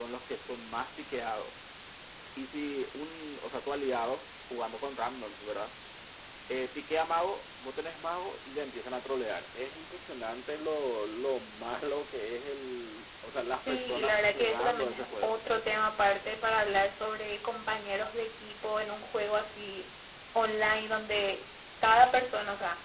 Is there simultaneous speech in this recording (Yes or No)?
Yes